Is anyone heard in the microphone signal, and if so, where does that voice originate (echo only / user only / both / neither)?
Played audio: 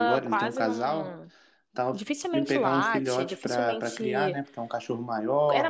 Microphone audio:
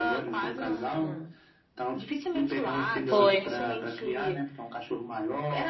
both